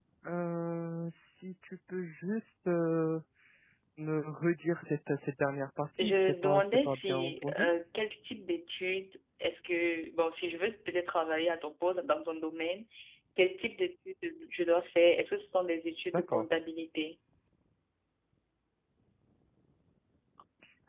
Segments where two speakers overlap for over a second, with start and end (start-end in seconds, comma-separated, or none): 6.0-7.7